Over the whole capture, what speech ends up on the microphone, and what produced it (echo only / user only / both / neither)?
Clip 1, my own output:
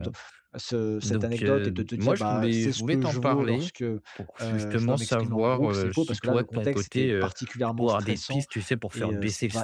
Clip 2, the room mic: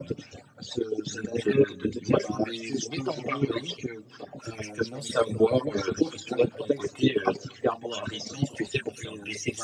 echo only